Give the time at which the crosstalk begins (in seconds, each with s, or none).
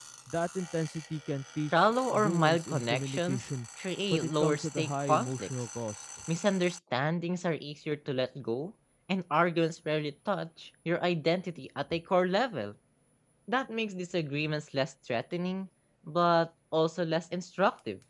1.7 s